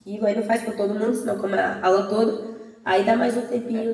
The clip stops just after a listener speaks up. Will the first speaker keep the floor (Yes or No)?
Yes